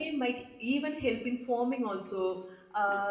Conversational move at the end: listening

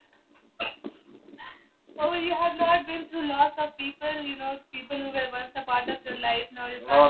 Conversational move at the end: taking over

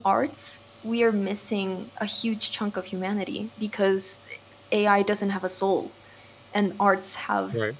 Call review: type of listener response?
listening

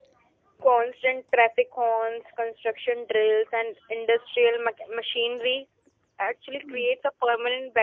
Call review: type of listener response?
listening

